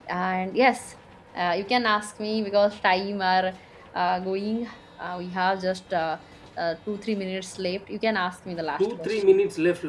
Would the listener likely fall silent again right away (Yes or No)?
No